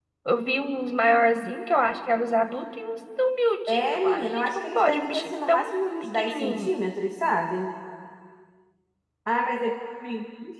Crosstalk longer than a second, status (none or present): present